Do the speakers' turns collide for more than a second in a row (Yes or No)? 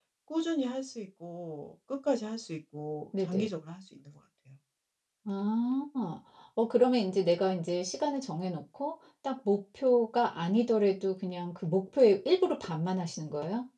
No